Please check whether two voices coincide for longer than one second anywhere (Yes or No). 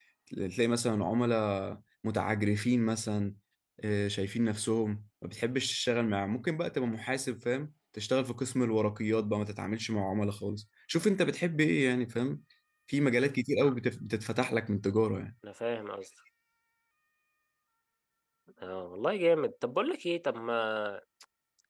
No